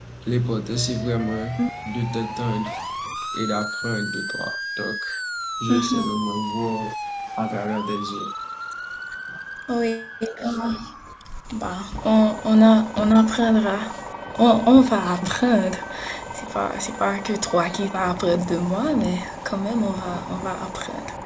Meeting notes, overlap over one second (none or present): none